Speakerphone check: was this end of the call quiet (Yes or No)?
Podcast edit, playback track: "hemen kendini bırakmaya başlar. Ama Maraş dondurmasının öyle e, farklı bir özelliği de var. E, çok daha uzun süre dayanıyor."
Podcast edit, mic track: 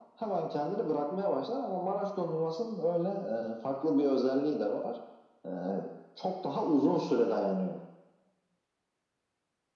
Yes